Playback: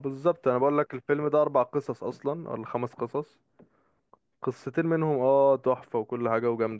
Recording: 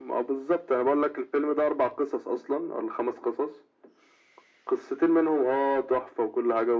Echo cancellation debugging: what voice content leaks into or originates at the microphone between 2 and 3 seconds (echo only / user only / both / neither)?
echo only